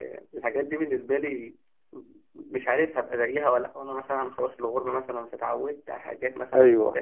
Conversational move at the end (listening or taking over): listening